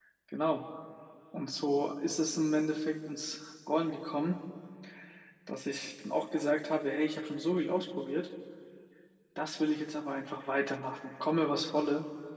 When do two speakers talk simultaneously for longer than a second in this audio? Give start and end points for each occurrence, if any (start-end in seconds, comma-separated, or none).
none